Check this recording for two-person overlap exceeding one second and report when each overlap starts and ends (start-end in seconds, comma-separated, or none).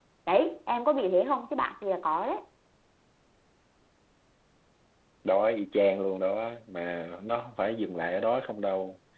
none